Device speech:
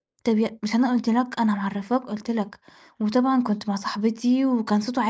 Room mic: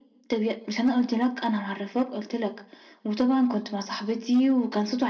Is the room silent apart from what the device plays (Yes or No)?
Yes